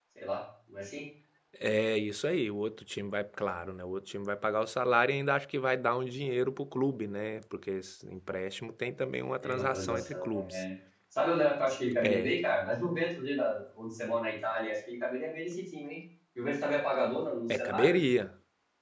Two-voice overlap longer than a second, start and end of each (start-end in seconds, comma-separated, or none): 9.4-10.6